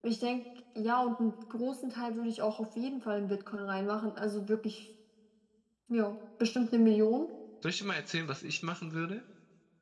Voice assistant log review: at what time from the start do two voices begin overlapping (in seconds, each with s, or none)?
none